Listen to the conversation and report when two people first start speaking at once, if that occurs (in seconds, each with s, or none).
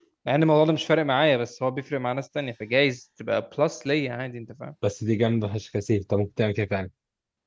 none